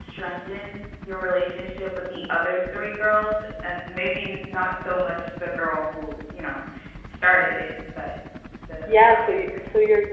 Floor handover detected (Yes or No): Yes